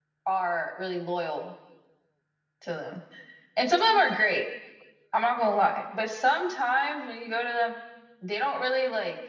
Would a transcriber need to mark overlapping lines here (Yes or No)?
No